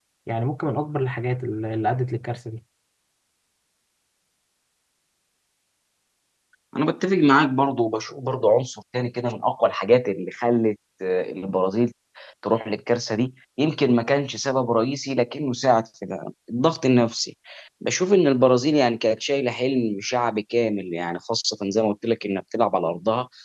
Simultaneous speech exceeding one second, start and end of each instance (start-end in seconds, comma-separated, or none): none